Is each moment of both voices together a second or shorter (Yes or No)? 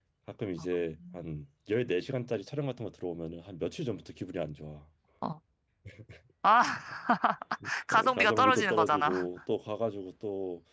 No